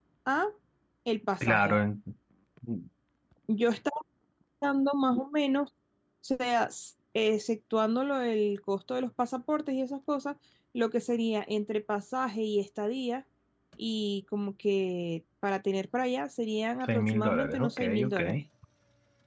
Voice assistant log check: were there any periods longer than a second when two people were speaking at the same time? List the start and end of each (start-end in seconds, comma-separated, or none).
16.8-18.2